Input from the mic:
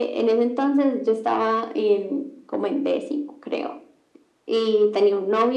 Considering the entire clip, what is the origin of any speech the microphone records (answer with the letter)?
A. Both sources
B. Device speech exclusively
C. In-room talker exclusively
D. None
B